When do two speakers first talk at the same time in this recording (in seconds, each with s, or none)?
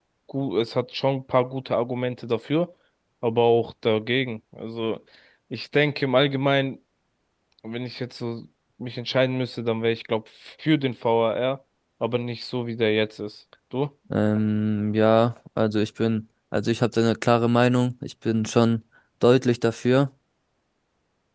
none